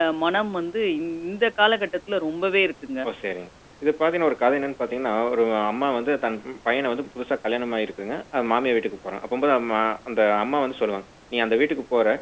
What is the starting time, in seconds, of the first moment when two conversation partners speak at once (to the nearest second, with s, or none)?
none